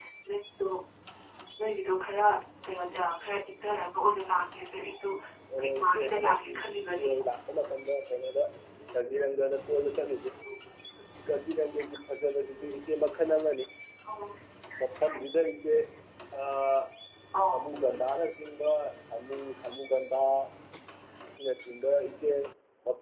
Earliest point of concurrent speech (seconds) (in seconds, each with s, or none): 5.8 s